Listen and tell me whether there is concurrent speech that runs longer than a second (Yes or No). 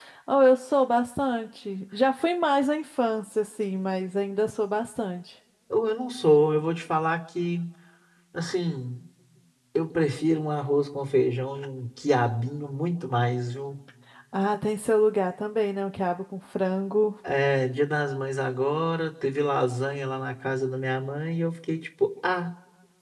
No